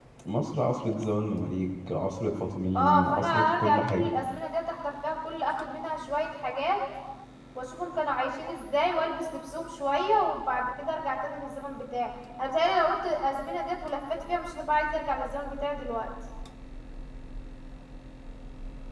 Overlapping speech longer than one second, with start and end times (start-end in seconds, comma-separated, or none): 2.8-4.1